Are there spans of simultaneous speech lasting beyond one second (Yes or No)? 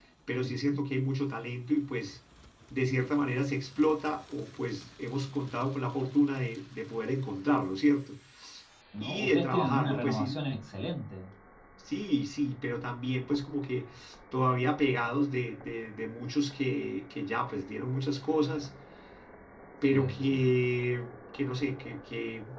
Yes